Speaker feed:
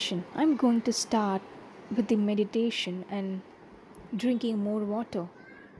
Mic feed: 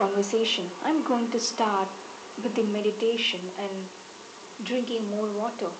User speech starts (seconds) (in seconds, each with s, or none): none